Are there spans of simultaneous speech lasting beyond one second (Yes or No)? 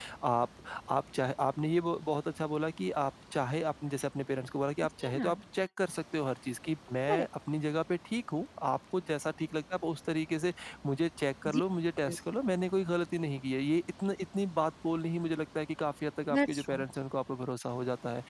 No